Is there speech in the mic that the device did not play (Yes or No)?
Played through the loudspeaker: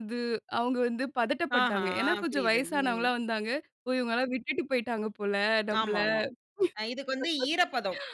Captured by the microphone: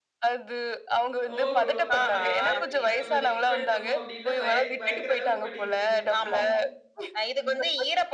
Yes